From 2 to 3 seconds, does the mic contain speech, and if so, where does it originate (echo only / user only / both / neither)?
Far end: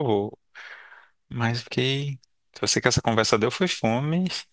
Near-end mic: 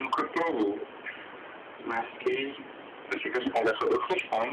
echo only